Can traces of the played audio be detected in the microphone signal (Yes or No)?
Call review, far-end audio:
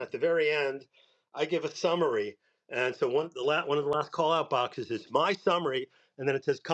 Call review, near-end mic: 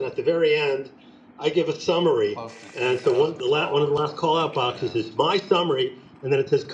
Yes